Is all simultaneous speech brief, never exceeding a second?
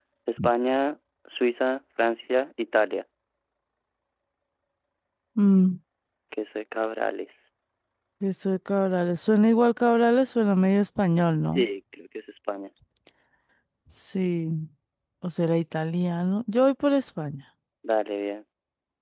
Yes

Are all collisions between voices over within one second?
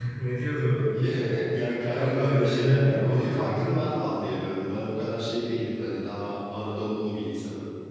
No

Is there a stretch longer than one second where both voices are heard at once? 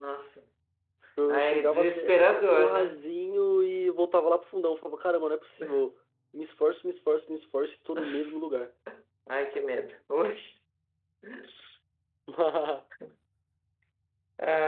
Yes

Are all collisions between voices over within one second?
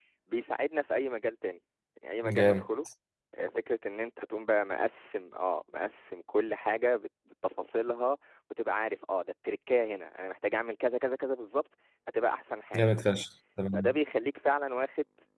Yes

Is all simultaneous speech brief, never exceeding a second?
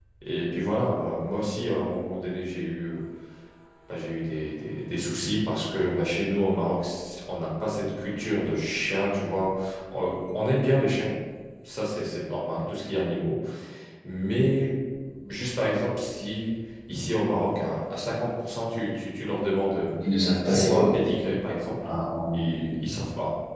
Yes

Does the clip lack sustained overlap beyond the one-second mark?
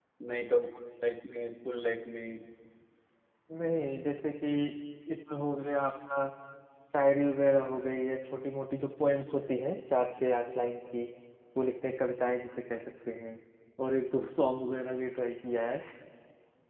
Yes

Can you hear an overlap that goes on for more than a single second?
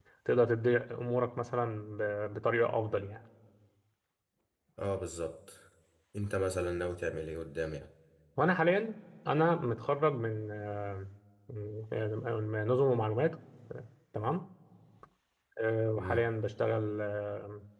No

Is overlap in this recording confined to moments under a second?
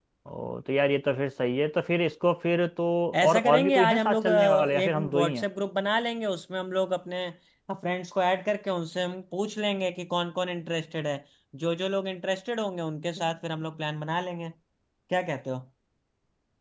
No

